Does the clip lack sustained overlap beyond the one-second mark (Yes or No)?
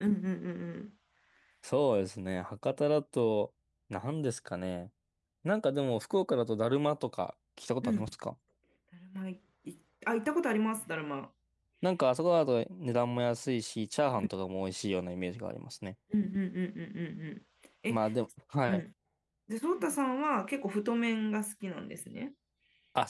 Yes